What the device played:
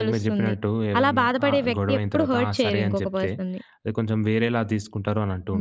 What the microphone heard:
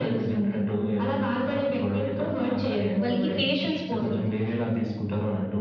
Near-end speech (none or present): present